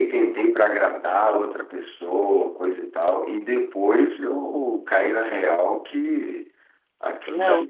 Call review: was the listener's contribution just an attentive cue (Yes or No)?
Yes